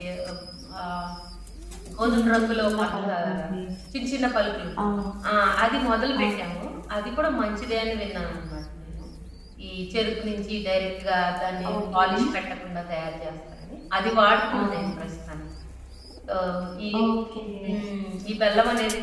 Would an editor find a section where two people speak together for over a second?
Yes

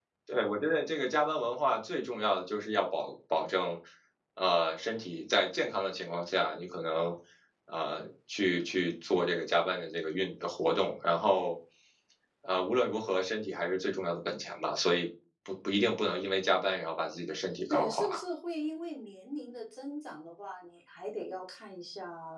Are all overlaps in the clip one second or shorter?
Yes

